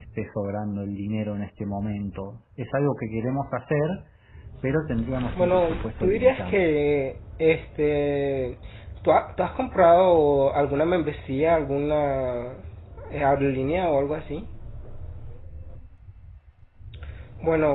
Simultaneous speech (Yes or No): Yes